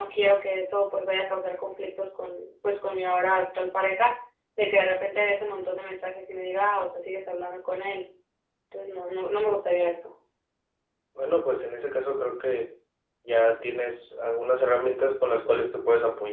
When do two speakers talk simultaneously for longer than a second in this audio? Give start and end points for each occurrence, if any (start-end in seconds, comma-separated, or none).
none